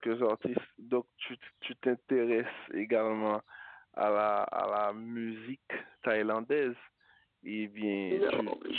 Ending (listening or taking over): taking over